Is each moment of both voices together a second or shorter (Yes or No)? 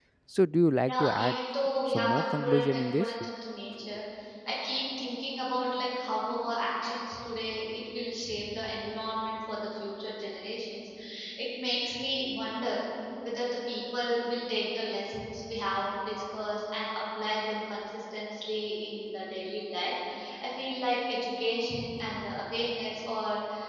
No